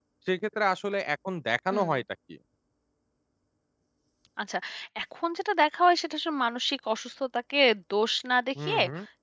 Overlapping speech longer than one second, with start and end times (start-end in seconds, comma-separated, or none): none